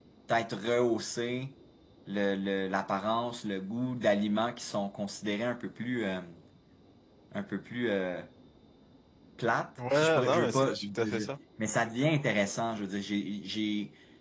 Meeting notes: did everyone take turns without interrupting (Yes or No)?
No